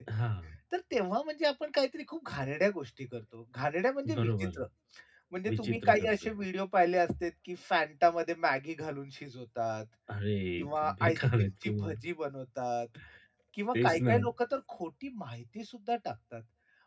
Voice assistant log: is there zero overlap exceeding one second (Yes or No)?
No